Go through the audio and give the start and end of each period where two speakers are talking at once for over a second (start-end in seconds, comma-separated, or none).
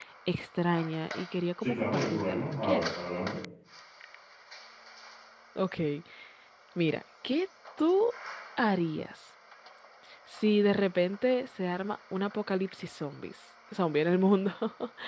1.6-2.9